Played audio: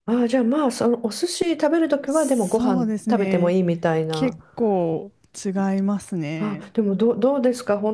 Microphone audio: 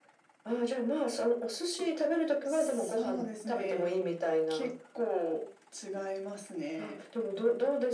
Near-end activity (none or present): none